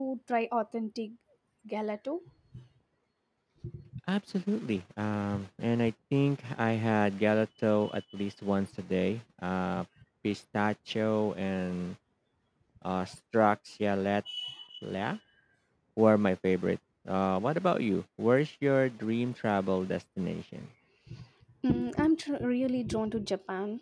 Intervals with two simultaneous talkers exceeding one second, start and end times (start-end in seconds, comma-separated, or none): none